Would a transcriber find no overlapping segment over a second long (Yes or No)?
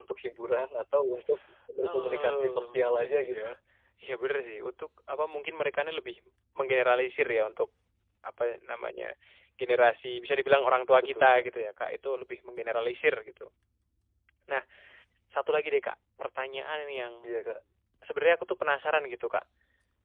No